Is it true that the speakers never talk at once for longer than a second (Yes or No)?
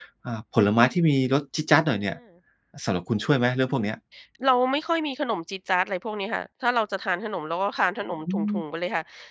Yes